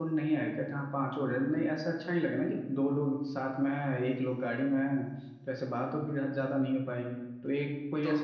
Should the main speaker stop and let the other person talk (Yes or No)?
Yes